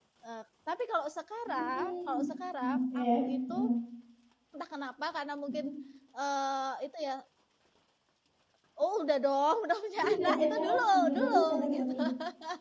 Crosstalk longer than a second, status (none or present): present